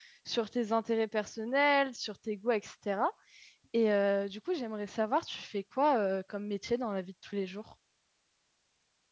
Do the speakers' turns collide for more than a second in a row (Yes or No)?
No